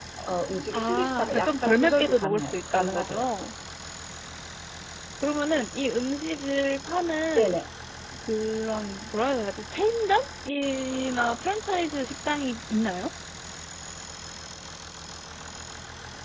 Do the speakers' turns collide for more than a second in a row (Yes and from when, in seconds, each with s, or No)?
Yes, from 0.7 s